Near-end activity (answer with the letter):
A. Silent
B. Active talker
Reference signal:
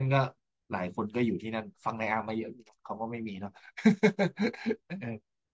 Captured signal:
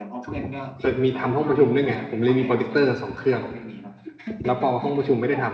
B